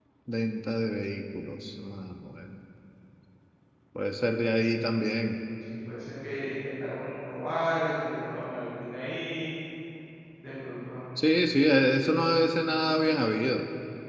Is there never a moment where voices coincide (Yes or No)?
Yes